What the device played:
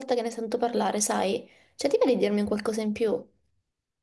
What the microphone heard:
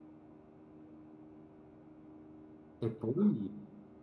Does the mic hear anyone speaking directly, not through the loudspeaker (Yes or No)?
Yes